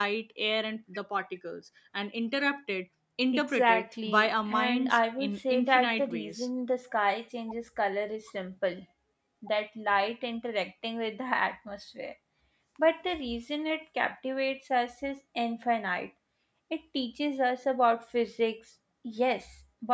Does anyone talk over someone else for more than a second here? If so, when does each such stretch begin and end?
3.3-6.5

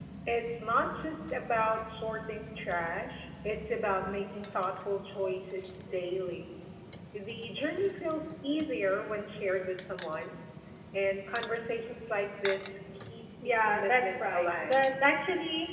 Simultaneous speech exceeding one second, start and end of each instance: 13.4-14.8

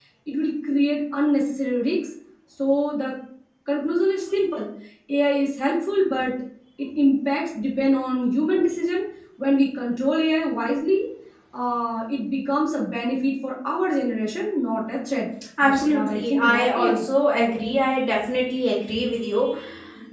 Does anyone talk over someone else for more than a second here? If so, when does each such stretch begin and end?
15.6-17.0

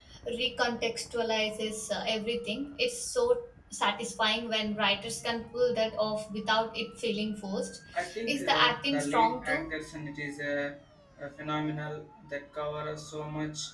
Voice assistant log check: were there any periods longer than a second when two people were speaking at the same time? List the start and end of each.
8.3-9.7

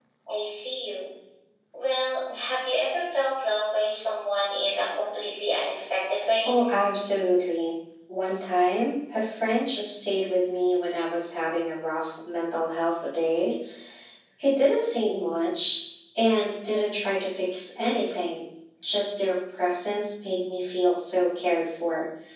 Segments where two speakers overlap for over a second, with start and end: none

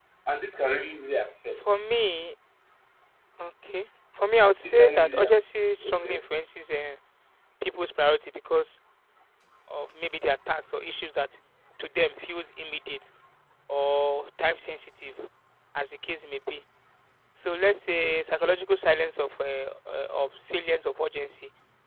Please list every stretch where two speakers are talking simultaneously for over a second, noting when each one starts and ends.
4.6-6.2

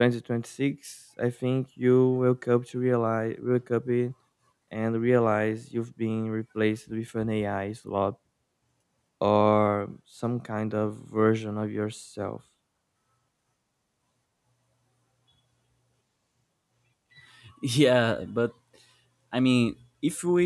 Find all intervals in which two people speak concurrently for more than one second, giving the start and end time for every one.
none

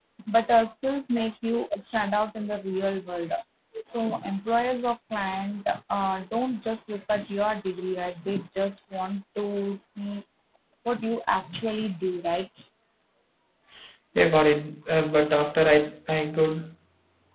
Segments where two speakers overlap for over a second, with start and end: none

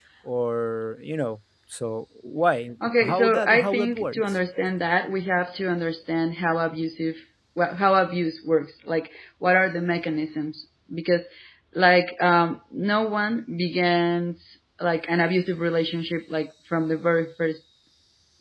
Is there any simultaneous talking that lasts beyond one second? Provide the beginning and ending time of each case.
3.0-4.2

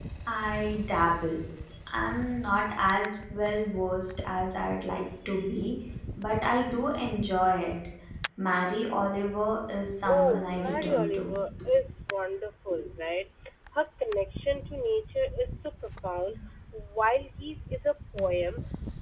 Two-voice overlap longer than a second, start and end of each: 10.1-11.4

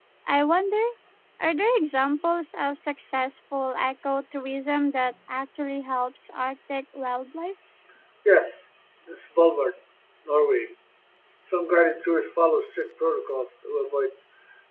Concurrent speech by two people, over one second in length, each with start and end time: none

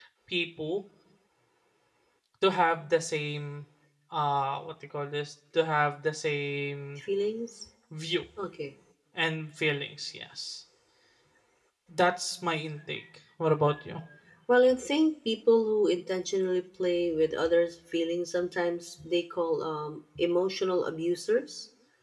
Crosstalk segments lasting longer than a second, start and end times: none

